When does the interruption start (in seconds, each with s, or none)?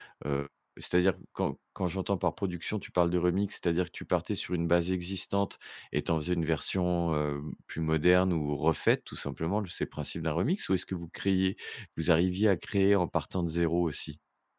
none